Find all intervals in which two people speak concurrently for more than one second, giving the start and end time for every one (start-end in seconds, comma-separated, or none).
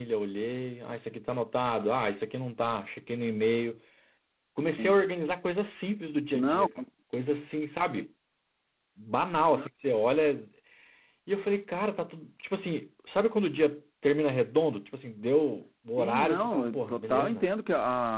16.0-17.5